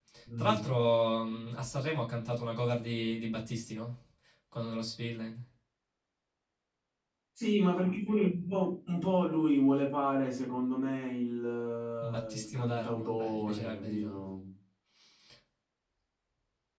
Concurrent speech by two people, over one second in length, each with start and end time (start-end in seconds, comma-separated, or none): 12.3-14.2